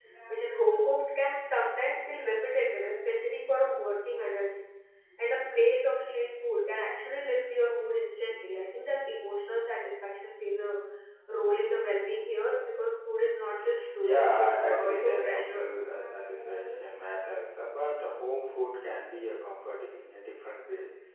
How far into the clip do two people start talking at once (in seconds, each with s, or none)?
14.0 s